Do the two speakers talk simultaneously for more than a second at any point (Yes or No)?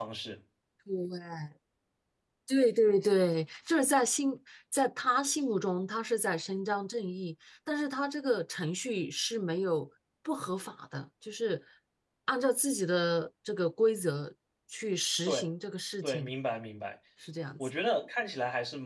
No